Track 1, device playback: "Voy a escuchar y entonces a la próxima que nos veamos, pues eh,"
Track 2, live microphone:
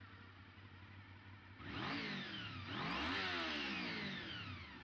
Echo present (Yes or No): No